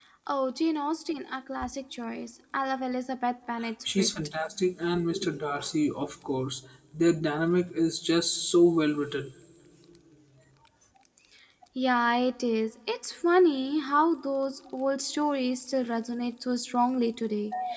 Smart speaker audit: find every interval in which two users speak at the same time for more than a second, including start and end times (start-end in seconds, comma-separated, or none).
none